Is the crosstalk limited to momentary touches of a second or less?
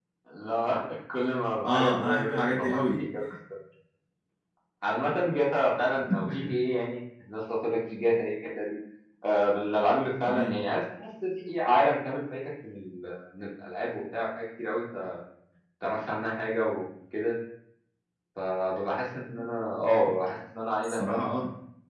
No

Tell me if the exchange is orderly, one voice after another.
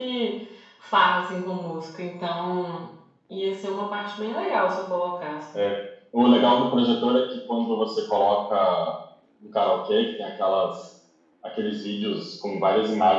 Yes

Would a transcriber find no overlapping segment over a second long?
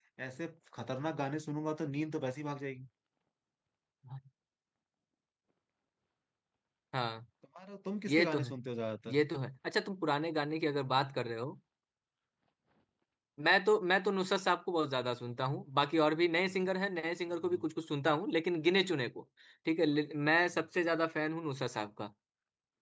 Yes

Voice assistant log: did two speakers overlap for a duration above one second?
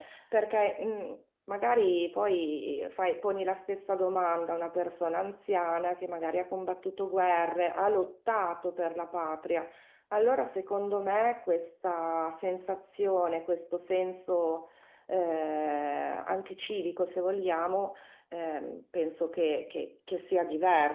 No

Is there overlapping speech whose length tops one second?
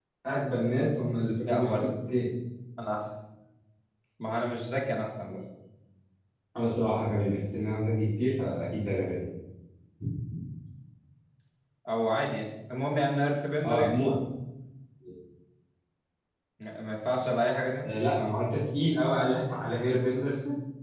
No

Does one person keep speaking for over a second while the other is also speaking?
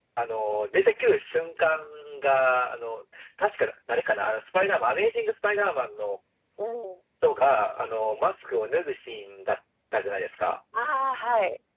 No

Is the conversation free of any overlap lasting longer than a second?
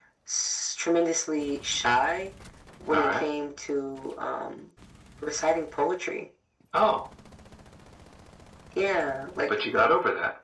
Yes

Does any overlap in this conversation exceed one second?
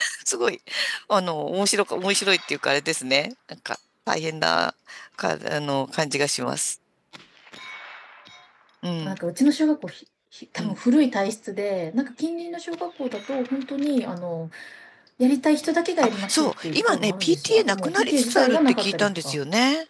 Yes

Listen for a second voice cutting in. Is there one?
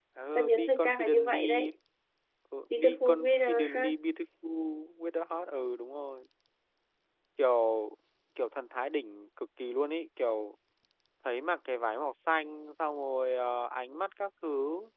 Yes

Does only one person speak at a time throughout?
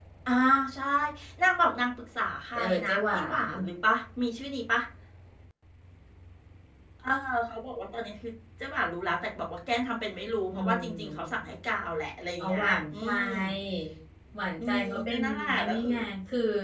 No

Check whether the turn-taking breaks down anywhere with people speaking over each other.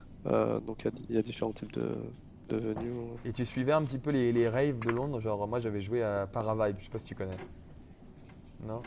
No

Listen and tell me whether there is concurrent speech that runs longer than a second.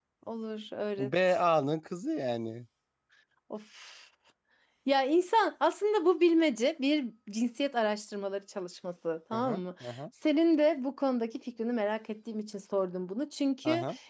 No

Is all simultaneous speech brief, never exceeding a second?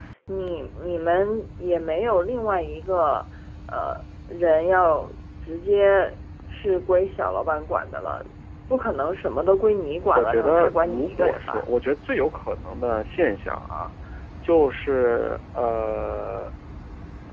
No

